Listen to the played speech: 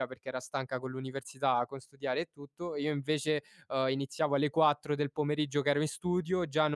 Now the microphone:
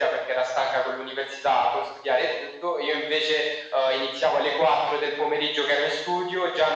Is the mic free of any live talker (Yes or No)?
Yes